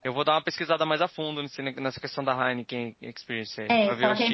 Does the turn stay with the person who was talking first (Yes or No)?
No